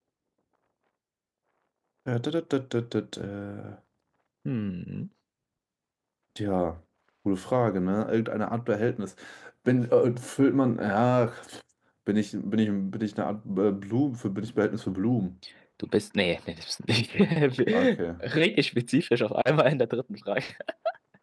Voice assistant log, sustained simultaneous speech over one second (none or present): none